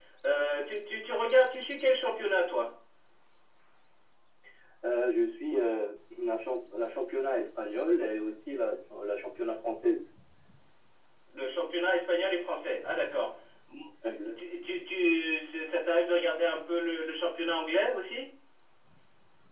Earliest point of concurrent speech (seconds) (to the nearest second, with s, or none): none